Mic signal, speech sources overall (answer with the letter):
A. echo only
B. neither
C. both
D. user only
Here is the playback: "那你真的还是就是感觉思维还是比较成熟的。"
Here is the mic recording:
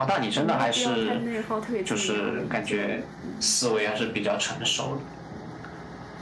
C